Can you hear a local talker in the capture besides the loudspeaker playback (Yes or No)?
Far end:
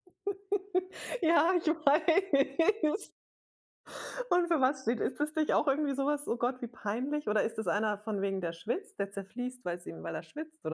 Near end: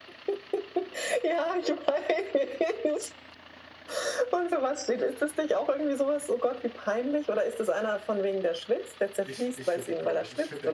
Yes